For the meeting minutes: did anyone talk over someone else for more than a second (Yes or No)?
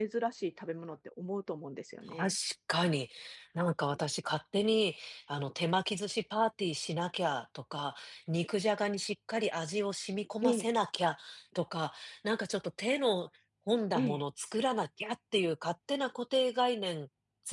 No